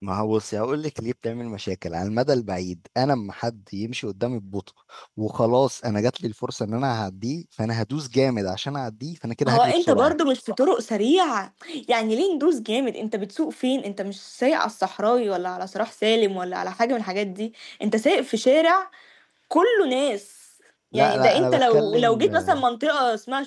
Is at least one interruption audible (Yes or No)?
Yes